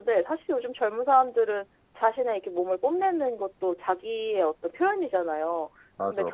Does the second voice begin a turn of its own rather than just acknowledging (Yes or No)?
No